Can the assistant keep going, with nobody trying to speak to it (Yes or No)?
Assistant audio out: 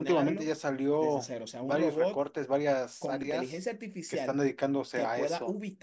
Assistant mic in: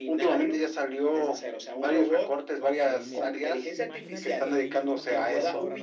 No